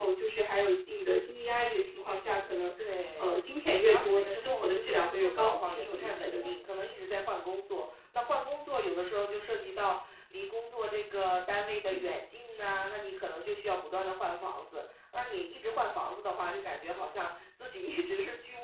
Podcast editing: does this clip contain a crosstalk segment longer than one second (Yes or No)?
Yes